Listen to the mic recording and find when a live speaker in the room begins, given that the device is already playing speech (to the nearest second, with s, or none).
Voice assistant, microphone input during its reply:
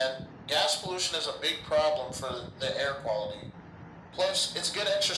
none